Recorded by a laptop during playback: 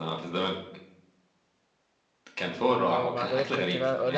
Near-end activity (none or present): present